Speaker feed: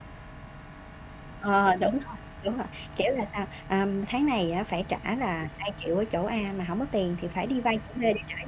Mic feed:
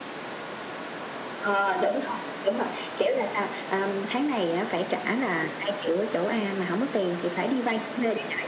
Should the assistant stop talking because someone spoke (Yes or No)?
No